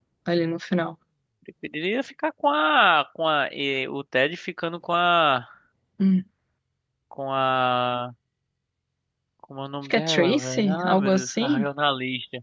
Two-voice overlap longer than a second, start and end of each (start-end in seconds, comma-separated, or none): 9.8-11.7